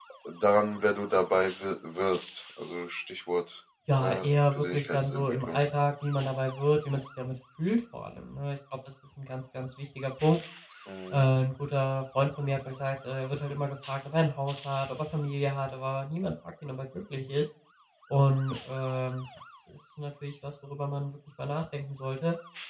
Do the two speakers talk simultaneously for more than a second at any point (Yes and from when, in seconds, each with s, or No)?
Yes, from 3.9 s